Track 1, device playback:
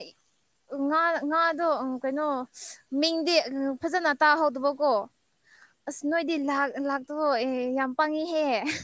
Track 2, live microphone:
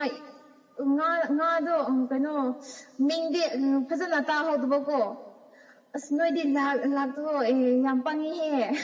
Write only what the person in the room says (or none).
none